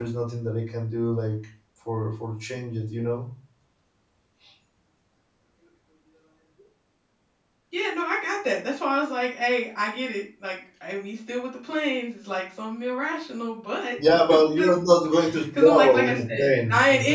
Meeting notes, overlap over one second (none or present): present